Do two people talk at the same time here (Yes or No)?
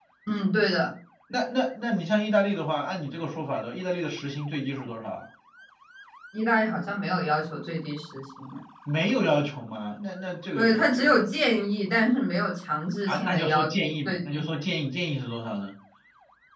Yes